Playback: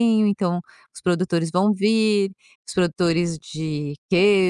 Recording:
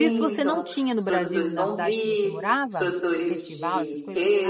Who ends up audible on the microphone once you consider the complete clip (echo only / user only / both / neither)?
both